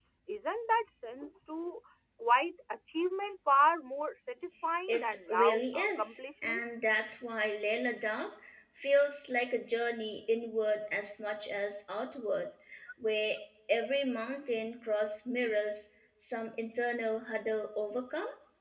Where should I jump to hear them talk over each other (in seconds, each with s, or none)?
4.9 s